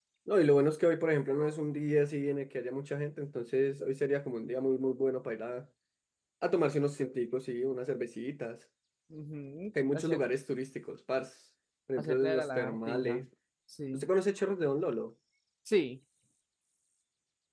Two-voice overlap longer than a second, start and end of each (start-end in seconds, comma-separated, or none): 12.0-13.2